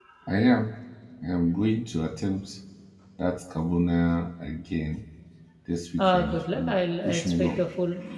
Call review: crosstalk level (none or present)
present